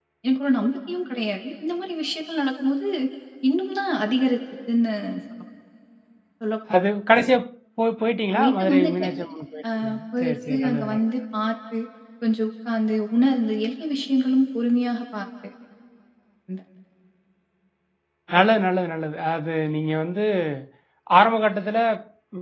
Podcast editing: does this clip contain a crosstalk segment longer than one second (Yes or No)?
Yes